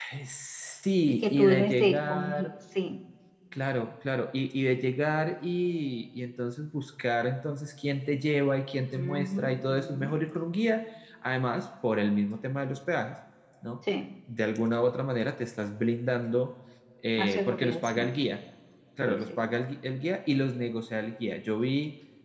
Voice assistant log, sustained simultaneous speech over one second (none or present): present